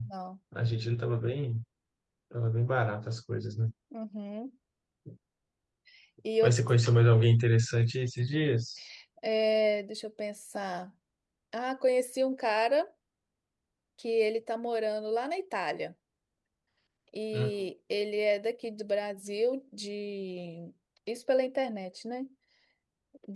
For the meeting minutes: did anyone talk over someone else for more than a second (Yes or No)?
No